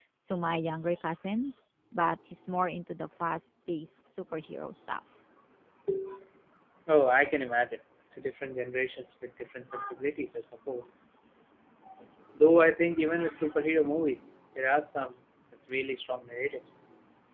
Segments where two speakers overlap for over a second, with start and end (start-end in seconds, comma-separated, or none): none